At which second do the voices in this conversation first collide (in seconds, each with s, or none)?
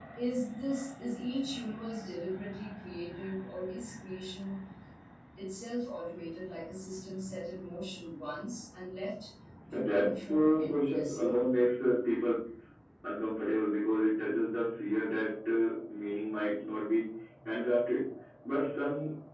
9.7 s